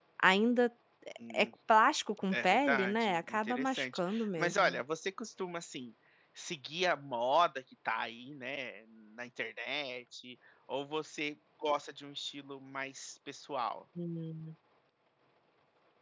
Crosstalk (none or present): present